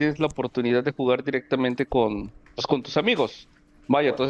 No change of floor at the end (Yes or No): Yes